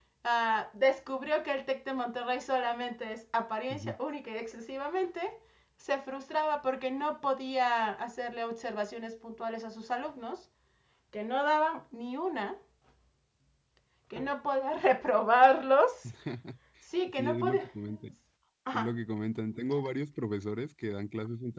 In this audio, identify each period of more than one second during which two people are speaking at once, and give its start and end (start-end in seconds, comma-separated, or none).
none